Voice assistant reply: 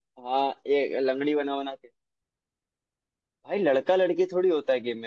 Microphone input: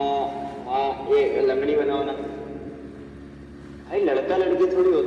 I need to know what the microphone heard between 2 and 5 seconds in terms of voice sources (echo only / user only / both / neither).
echo only